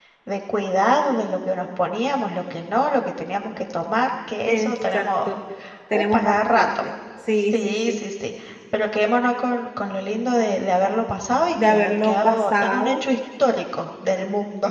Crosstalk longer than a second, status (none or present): present